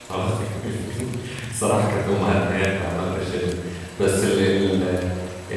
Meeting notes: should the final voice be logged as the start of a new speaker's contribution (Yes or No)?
No